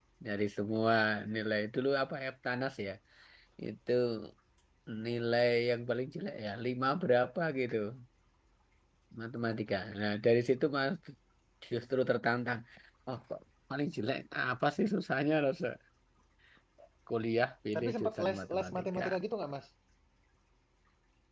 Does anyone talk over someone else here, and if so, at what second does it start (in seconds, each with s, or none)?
17.7 s